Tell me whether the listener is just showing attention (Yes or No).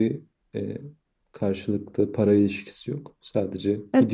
No